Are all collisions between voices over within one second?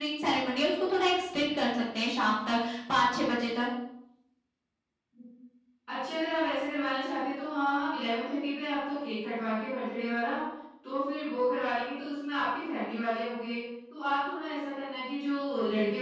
Yes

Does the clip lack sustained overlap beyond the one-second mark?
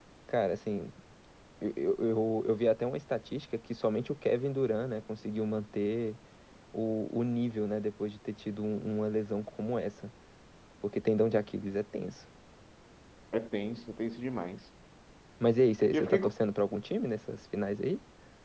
Yes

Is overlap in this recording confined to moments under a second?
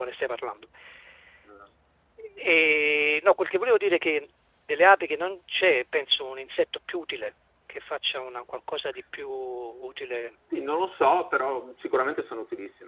Yes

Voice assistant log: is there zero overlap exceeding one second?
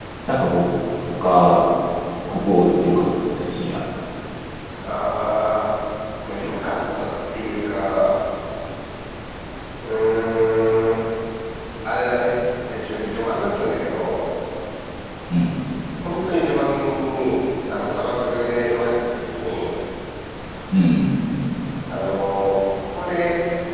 Yes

